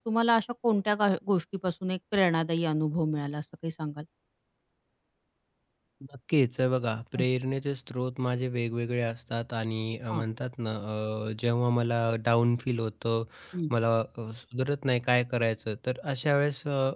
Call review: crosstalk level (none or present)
none